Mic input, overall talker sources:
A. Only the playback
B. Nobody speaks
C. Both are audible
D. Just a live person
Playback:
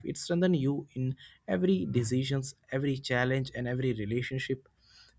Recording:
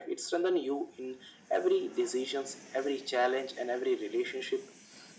A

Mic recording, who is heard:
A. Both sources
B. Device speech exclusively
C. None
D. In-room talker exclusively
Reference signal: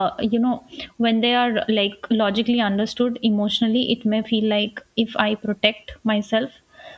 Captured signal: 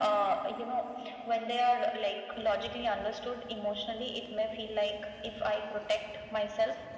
B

